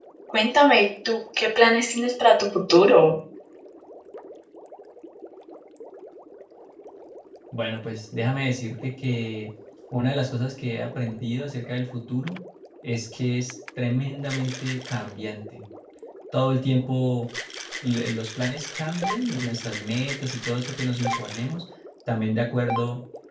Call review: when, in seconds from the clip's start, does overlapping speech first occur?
none

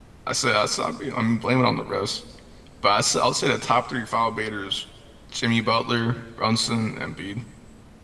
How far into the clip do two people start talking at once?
none

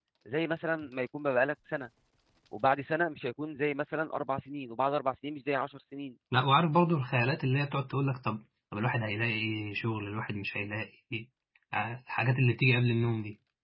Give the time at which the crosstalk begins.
none

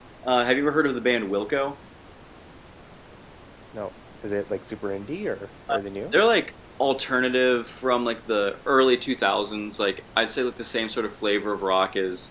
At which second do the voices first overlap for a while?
none

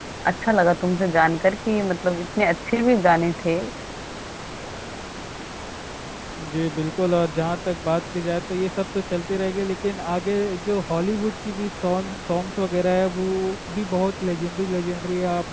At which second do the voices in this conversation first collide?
none

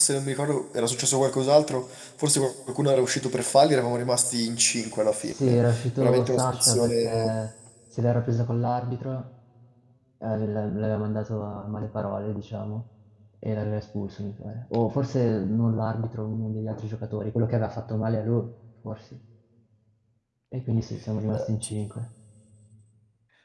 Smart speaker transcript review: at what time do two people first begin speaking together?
5.2 s

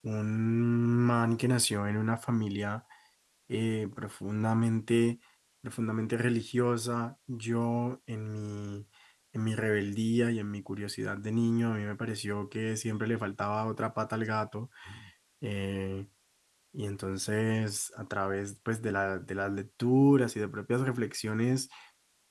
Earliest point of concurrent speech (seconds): none

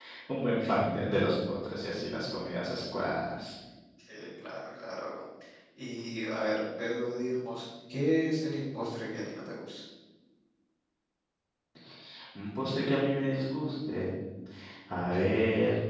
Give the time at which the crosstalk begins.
none

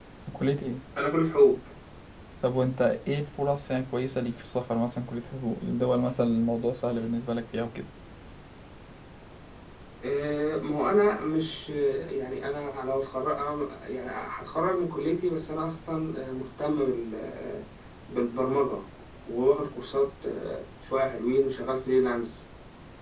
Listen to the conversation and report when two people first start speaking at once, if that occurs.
none

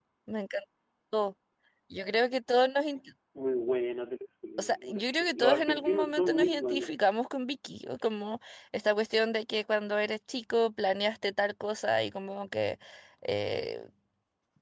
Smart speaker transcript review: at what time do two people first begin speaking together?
4.6 s

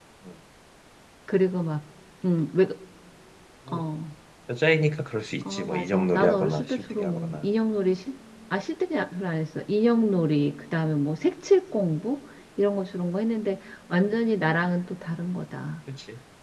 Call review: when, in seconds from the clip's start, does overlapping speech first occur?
5.4 s

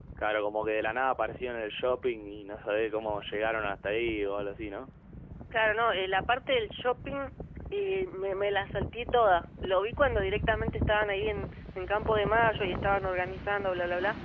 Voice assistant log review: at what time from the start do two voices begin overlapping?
none

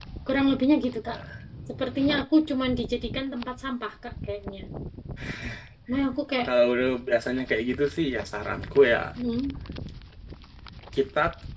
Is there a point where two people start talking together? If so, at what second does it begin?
none

